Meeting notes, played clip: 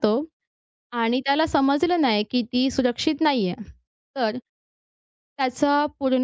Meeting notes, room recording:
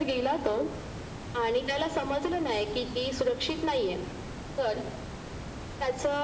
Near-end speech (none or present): none